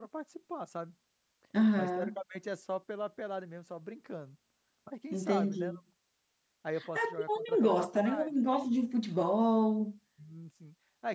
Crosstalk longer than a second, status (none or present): present